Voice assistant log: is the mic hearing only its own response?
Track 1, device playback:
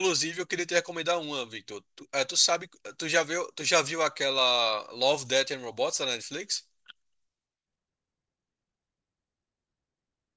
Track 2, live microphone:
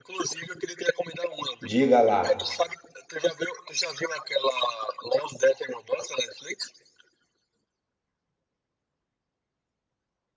No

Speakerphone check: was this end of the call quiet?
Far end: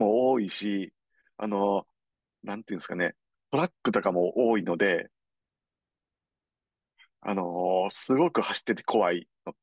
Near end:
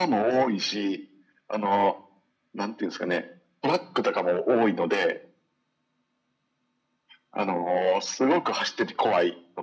Yes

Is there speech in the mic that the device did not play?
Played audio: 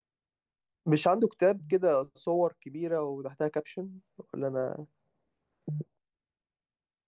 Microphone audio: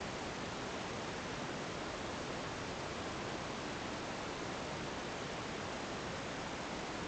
No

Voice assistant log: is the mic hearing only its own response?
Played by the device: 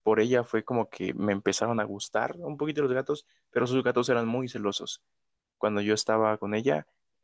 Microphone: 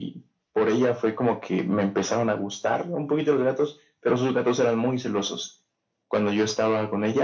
Yes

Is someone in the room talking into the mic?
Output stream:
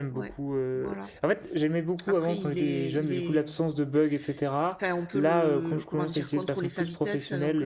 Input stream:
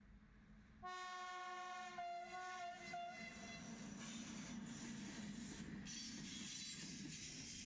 No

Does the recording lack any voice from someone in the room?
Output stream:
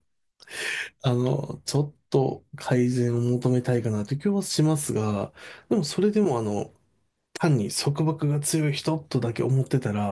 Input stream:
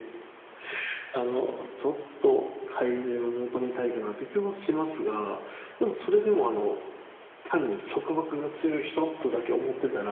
No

